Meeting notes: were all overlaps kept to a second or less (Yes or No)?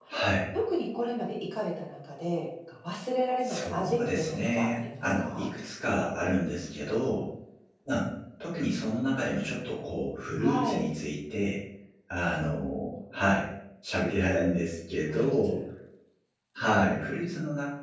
No